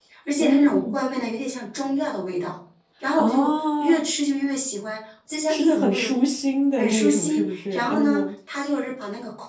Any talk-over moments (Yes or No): Yes